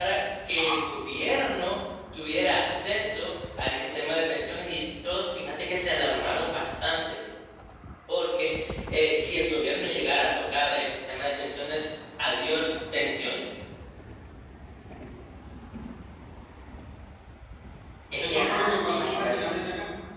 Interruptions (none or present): present